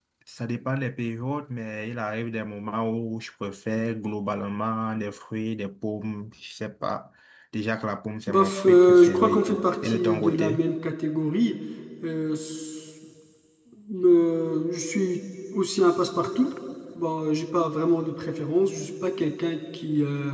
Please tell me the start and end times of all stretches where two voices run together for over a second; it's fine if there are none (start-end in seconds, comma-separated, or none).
8.3-10.6